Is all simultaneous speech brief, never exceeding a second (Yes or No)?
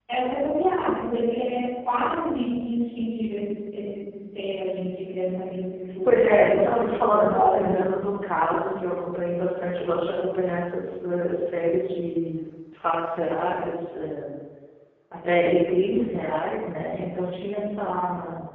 No